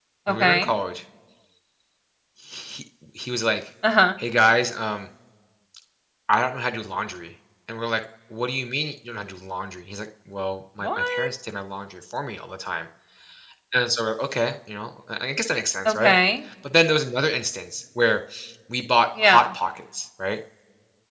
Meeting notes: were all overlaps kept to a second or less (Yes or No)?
Yes